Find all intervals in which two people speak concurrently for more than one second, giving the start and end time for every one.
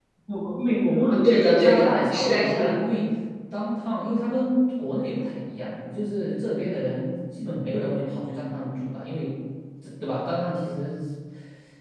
1.0-2.8

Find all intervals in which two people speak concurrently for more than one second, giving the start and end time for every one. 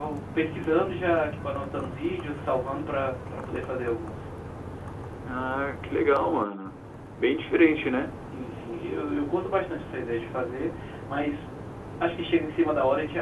none

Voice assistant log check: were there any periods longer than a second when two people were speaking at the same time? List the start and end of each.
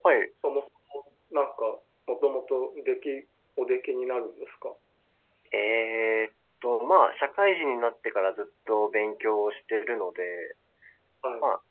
none

